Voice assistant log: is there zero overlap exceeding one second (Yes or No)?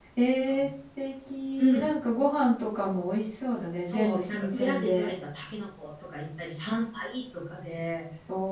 No